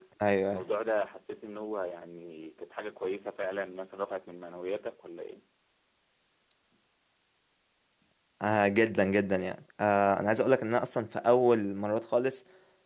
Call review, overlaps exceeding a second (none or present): none